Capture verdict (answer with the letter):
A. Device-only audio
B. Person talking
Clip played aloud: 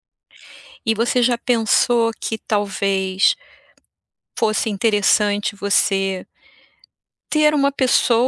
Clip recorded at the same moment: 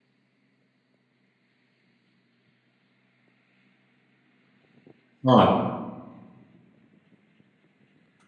B